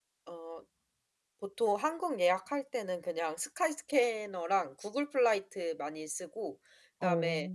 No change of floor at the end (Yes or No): Yes